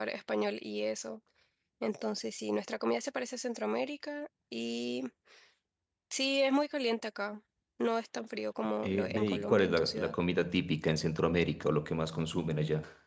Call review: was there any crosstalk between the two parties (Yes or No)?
Yes